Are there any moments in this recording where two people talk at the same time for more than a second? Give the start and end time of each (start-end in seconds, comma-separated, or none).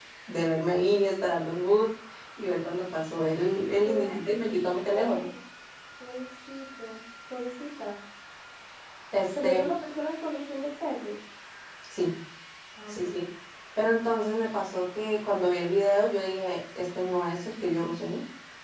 3.8-5.2